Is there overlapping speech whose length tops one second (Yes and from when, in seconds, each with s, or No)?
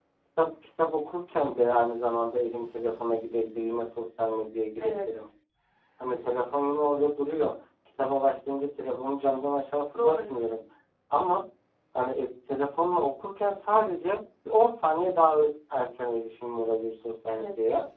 No